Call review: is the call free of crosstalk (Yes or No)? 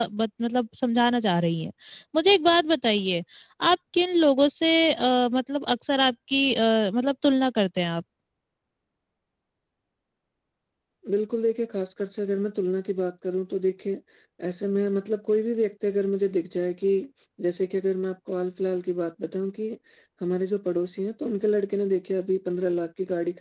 Yes